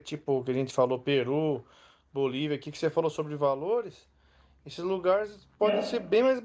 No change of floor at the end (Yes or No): Yes